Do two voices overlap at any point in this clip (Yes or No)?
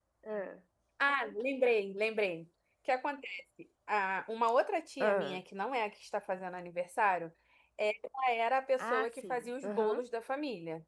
Yes